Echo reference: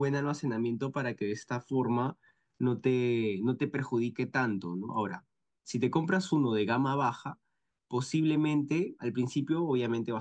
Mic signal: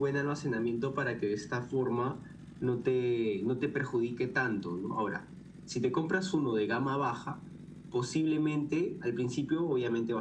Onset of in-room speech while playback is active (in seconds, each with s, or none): none